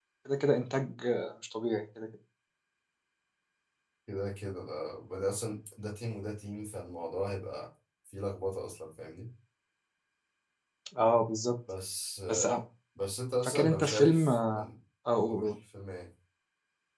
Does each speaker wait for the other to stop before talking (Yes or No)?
No